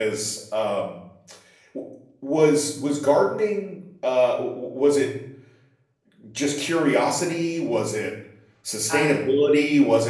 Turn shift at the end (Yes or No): No